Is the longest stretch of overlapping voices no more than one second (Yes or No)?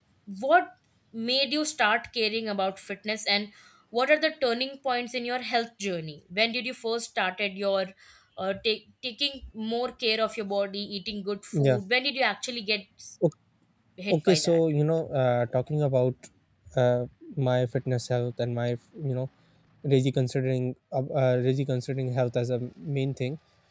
Yes